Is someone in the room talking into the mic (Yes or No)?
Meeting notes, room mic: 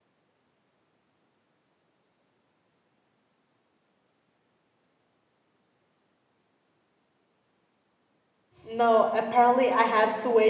Yes